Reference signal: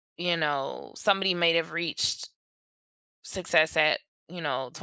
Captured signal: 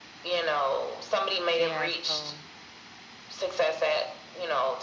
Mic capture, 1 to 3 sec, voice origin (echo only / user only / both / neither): both